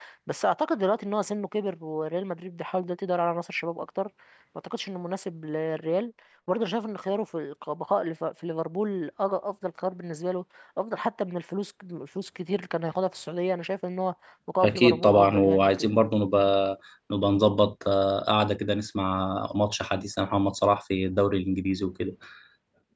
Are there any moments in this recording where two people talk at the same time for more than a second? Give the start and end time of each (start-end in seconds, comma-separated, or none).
14.6-15.8